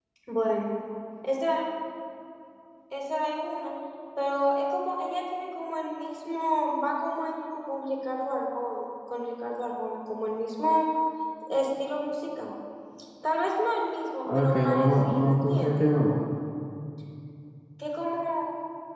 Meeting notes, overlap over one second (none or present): present